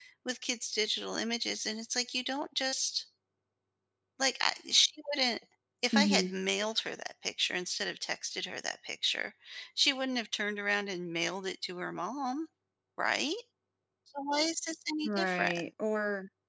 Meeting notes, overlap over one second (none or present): none